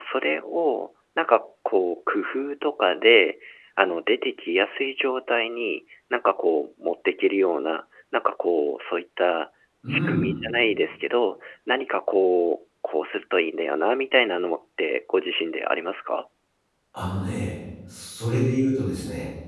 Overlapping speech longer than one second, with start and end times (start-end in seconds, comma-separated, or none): none